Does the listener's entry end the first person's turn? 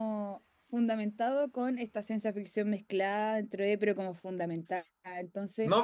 Yes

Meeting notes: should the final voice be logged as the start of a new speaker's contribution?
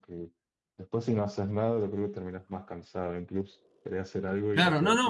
Yes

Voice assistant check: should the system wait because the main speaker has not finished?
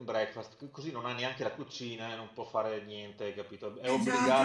No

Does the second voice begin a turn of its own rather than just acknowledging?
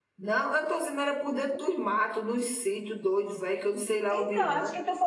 Yes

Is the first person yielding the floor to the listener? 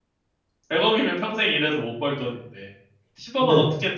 No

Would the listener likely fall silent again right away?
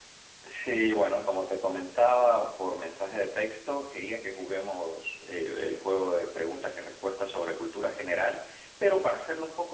Yes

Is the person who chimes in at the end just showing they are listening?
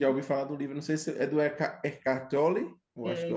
No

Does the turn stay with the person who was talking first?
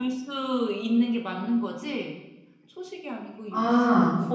No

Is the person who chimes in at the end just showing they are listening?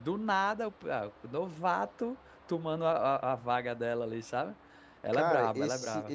No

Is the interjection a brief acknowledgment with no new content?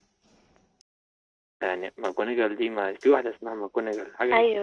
No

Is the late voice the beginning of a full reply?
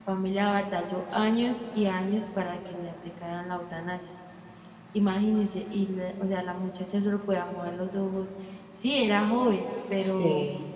No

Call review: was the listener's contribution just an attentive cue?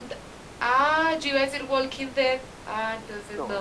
No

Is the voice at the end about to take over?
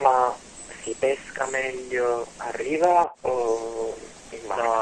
Yes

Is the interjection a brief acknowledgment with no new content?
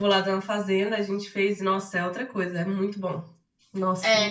No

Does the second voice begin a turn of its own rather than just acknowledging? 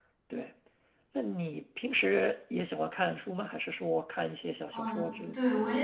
Yes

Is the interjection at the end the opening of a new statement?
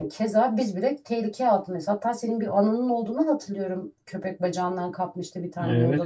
Yes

